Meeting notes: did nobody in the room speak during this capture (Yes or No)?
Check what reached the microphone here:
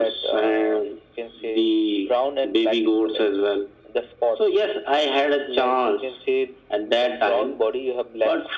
Yes